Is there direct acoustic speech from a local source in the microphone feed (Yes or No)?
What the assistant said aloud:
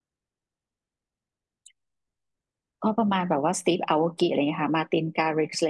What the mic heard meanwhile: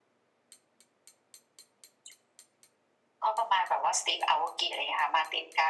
No